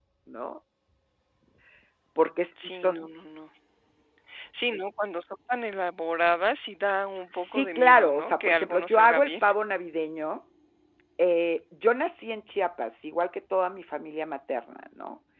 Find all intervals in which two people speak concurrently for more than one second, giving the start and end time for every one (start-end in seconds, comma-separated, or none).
7.3-9.3